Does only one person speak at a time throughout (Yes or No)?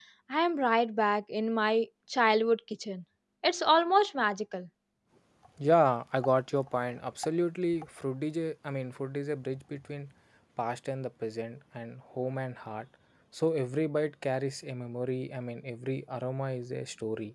Yes